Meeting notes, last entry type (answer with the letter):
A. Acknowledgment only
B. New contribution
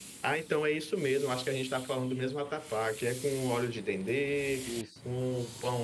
A